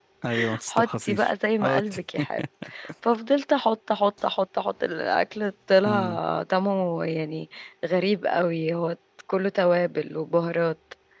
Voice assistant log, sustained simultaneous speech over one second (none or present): present